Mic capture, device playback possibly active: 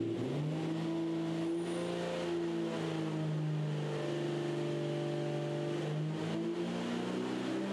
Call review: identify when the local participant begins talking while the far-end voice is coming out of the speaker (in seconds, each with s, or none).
none